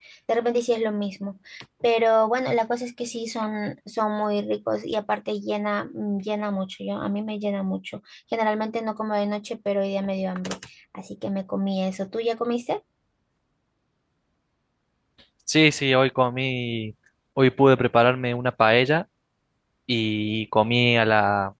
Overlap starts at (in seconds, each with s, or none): none